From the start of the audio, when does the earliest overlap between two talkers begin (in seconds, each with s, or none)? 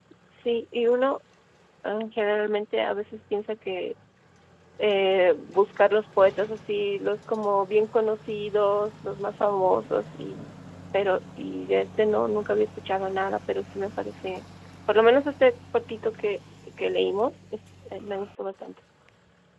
none